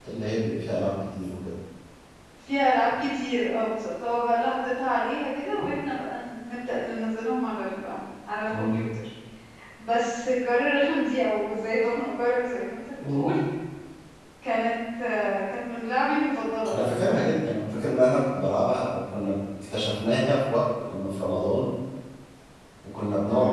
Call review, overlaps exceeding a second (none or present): none